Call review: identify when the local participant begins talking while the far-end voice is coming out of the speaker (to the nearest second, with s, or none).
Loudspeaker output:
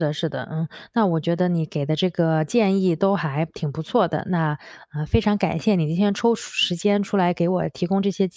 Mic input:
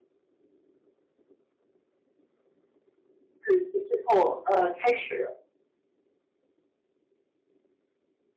3 s